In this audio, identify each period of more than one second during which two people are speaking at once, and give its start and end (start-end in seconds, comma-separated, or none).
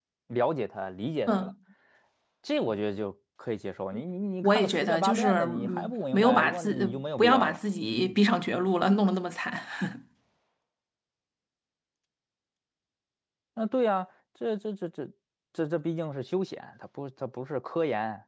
4.4-7.6